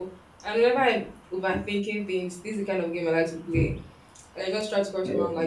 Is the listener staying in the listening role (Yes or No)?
Yes